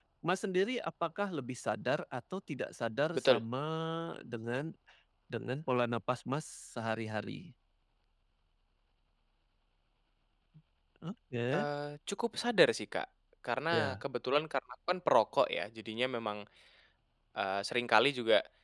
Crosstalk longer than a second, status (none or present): none